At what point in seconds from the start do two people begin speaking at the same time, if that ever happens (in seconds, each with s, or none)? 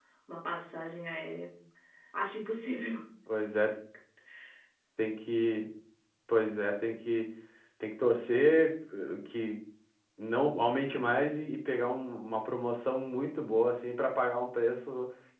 none